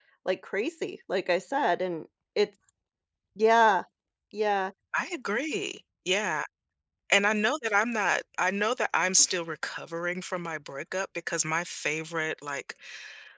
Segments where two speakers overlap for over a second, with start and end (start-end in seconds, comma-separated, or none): none